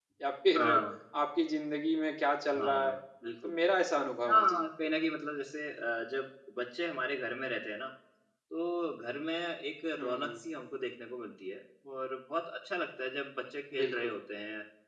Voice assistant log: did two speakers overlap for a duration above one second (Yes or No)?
No